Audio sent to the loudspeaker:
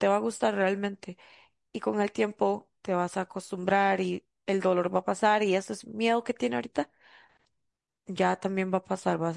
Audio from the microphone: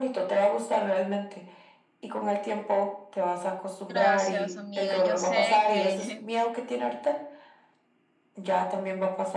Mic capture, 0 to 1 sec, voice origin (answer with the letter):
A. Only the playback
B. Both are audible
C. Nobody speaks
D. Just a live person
A